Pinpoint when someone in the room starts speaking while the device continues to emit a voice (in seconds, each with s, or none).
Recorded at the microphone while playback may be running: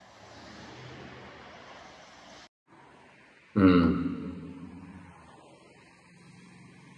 3.6 s